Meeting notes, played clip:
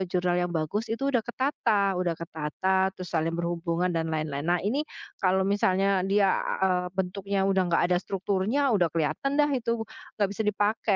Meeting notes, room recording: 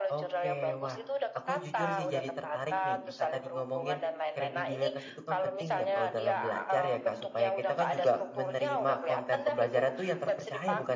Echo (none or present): present